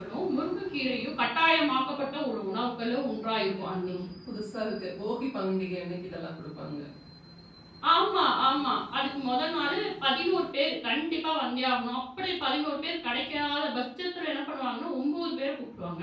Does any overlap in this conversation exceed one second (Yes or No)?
No